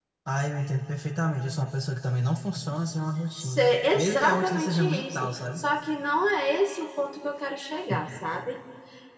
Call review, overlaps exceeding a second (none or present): present